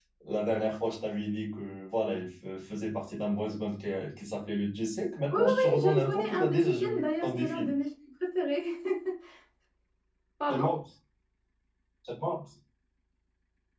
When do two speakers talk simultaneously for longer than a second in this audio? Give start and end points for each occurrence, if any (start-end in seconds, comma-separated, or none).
5.3-7.7